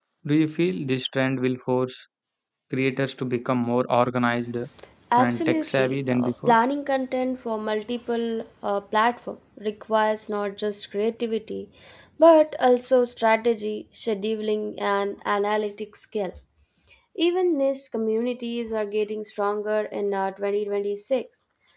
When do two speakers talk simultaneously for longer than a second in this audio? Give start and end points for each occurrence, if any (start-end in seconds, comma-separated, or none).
5.2-6.5